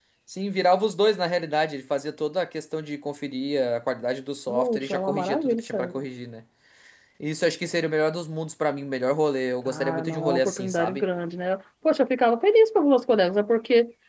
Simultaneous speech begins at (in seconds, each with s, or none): 4.5 s